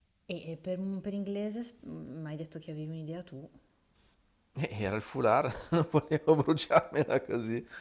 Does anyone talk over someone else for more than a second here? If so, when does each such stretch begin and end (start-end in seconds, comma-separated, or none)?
none